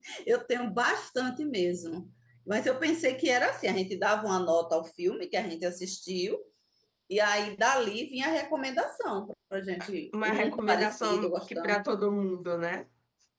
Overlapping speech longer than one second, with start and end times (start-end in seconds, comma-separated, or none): 10.2-11.8